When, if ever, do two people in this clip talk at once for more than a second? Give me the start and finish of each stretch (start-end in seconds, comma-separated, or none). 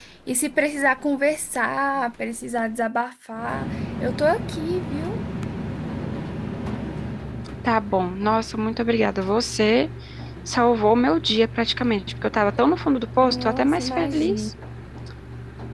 13.2-14.5